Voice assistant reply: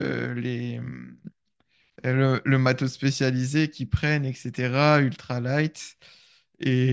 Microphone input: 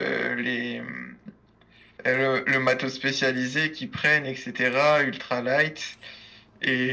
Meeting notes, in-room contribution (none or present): none